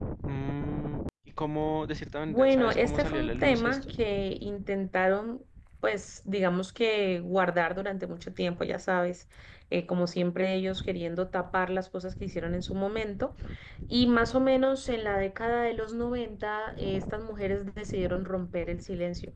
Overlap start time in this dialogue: 2.3 s

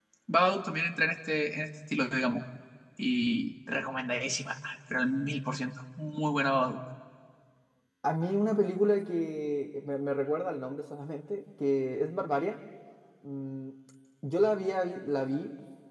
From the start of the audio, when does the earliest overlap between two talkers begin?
none

